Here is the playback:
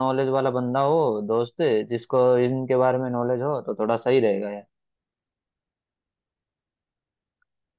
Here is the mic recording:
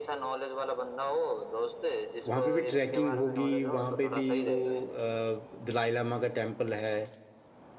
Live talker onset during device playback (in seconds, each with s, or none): 2.3 s